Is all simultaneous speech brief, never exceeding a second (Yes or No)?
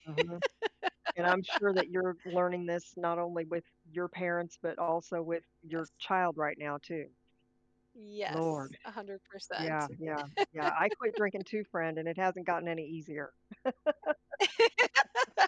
Yes